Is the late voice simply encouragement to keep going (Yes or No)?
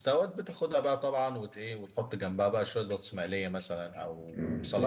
No